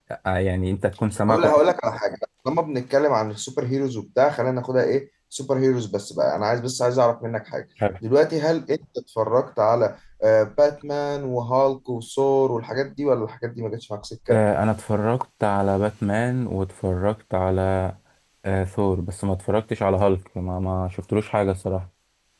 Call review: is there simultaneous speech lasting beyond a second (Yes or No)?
No